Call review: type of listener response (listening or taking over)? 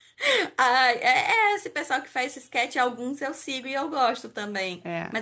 listening